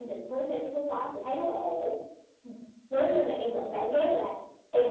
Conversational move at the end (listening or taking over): listening